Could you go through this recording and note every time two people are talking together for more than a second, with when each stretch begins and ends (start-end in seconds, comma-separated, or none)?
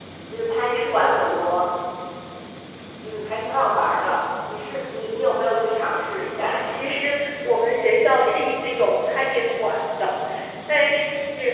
none